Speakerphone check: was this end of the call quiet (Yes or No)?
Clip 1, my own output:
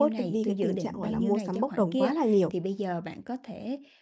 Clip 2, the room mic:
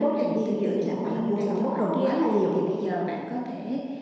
Yes